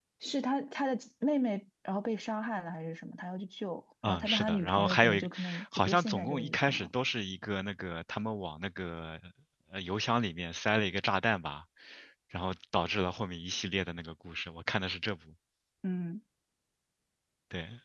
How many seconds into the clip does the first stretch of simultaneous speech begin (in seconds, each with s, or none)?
4.0 s